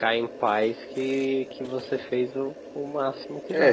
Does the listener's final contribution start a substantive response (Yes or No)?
Yes